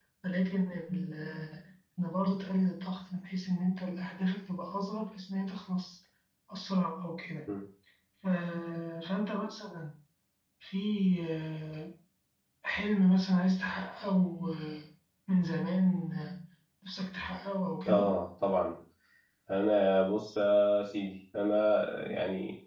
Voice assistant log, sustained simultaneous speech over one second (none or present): none